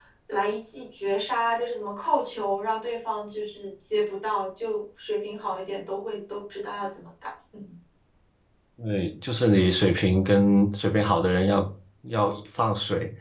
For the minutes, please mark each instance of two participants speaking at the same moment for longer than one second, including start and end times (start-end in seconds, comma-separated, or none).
none